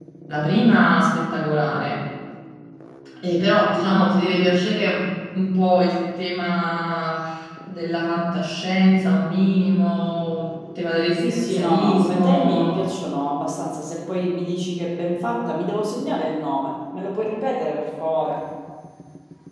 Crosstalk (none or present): present